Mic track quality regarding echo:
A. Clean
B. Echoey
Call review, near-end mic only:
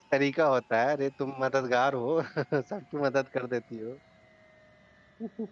A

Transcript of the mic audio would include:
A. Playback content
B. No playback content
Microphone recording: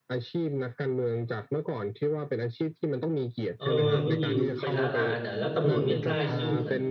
A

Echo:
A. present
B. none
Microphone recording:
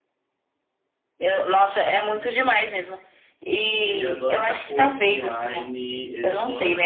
A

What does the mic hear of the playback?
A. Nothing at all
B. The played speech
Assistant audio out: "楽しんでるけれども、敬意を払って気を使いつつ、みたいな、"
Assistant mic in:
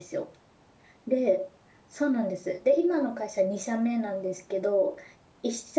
A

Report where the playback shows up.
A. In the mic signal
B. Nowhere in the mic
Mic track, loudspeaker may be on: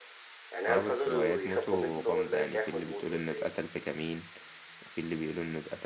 A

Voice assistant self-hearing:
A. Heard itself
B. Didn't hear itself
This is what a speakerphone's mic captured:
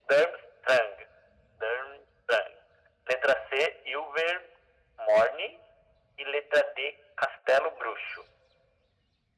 A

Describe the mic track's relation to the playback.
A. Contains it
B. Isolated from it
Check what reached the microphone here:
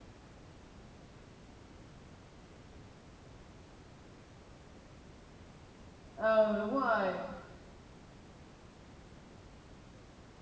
B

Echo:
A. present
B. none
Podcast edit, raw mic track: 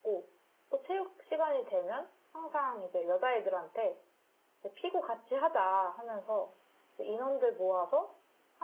B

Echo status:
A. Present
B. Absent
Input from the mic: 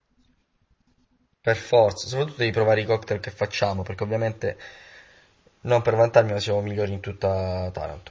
B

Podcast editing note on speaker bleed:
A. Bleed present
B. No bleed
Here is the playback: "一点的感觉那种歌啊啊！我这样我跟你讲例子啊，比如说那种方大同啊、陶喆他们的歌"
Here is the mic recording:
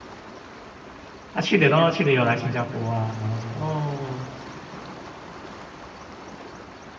B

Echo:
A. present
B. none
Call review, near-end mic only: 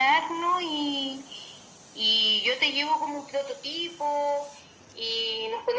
A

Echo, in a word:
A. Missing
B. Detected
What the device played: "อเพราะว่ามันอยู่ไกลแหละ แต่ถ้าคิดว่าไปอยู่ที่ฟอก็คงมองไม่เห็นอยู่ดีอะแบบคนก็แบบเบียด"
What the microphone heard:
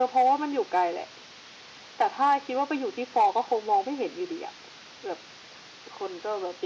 B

